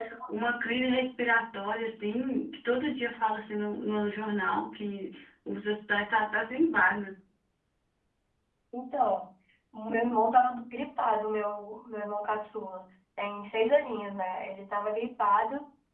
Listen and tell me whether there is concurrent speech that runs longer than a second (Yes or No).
No